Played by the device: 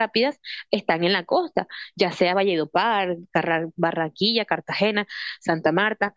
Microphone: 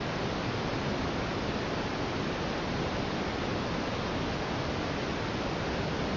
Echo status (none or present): none